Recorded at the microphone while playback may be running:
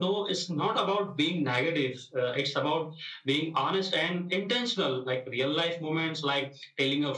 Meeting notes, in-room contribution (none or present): none